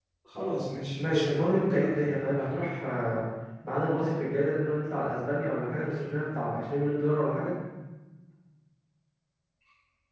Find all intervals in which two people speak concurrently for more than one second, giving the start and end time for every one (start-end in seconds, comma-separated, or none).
1.0-2.5